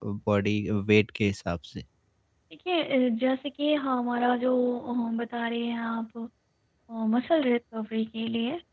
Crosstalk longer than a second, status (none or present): none